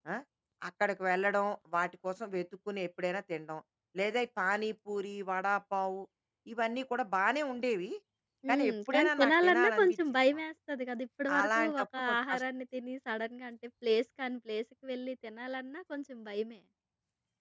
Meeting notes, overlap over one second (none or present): present